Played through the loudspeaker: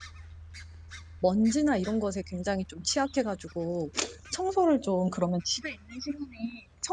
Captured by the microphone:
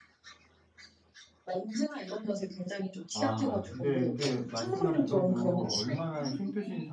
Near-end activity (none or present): present